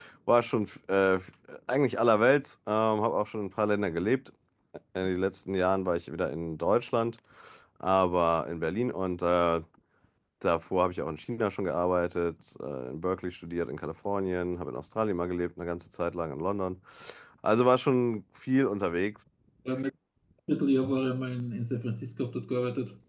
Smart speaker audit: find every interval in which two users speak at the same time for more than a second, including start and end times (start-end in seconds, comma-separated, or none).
none